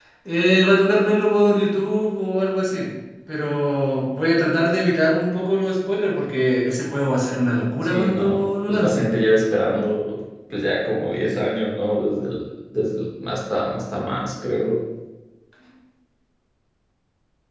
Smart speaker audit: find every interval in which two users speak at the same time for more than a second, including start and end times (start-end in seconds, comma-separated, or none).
7.8-9.1